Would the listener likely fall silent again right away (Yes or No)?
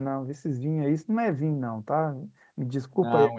Yes